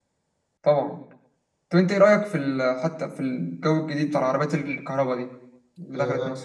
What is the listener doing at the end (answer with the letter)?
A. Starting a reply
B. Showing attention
A